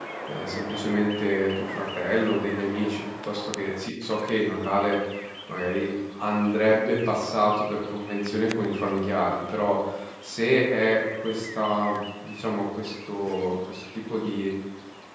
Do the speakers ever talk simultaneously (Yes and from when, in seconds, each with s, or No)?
No